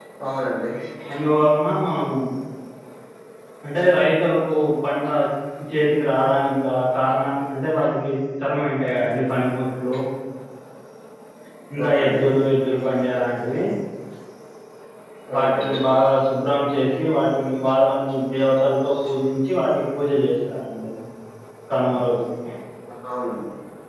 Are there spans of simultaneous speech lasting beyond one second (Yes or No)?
No